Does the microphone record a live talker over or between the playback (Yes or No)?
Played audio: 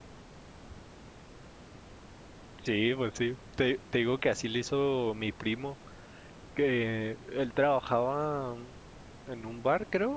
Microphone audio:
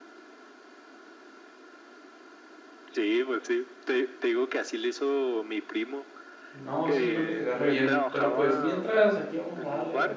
Yes